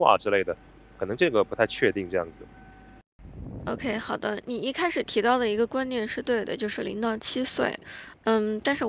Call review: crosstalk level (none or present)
none